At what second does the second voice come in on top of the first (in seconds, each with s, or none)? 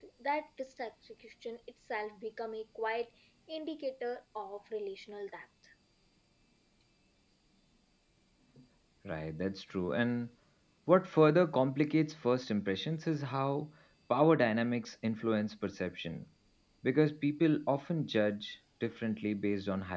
none